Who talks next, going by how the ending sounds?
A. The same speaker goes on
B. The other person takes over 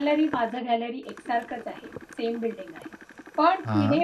A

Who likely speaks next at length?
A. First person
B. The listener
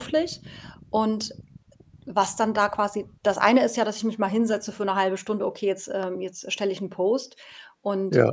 A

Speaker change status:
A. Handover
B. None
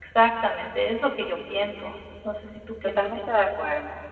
A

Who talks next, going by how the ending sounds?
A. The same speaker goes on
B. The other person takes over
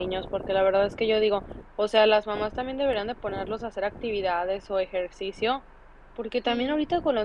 A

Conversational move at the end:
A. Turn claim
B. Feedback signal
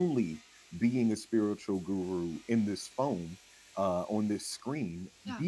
B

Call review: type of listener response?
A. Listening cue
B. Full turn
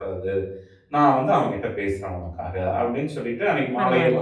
A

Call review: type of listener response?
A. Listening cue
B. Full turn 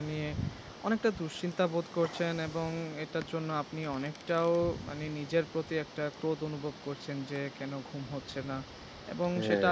A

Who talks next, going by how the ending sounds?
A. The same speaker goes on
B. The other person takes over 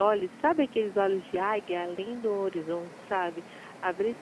A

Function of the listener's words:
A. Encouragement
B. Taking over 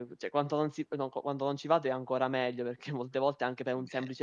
A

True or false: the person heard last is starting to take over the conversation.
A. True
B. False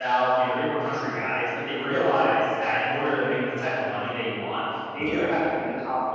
B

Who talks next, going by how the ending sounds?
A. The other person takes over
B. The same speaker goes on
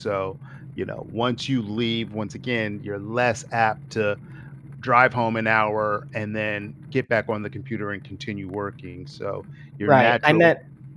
A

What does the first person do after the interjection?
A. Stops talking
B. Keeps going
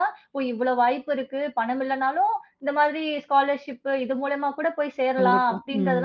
B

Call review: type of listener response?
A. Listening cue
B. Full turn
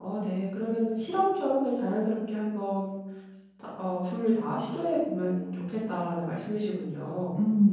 B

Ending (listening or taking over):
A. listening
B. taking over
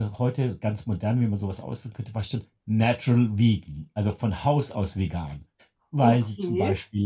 A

